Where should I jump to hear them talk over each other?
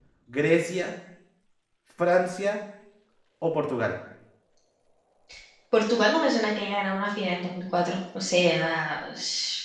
none

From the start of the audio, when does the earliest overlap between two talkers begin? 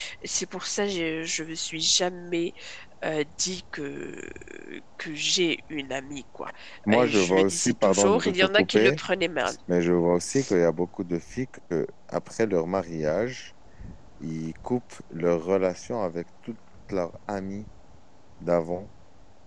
6.9 s

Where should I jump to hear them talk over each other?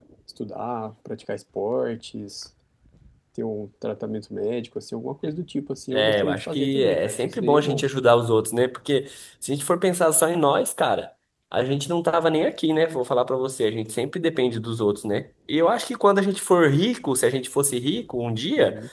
5.9 s

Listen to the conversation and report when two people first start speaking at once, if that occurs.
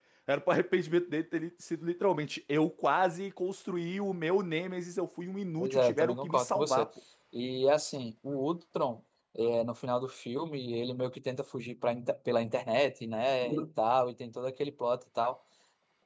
5.6 s

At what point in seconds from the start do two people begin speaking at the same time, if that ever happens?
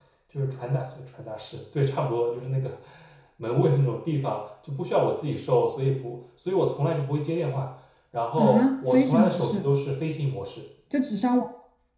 8.4 s

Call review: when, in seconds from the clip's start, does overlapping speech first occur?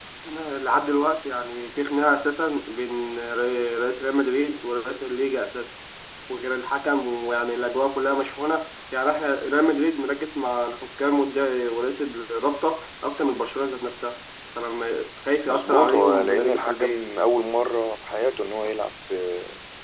15.4 s

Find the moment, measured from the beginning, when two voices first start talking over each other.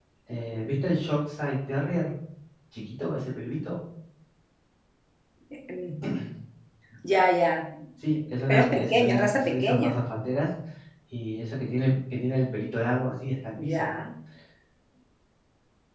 8.5 s

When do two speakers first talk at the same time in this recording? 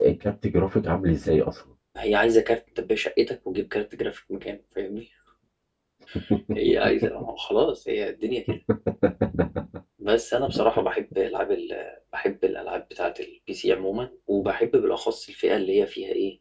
none

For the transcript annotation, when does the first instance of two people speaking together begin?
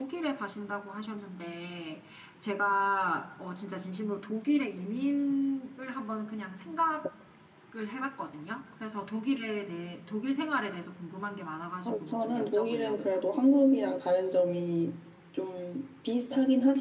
11.8 s

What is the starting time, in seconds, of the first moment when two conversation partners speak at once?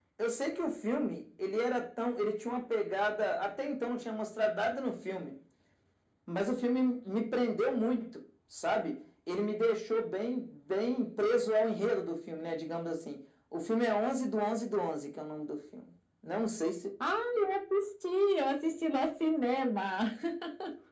none

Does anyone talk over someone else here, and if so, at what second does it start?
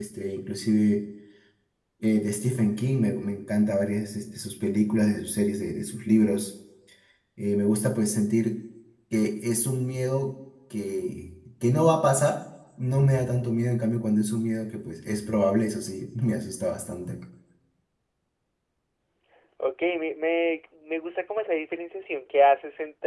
none

